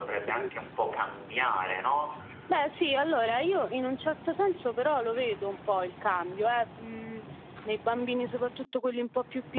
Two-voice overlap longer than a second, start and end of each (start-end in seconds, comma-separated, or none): none